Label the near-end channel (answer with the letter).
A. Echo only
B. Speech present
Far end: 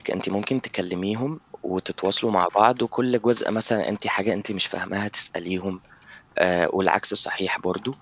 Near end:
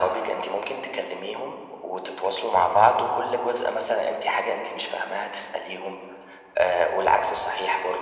A